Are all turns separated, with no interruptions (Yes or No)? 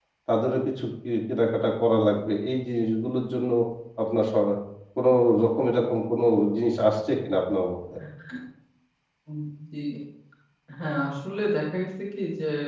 Yes